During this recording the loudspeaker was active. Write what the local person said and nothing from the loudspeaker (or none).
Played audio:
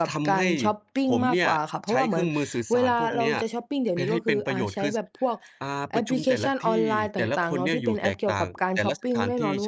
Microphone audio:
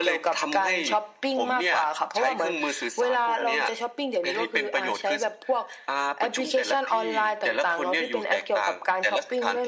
none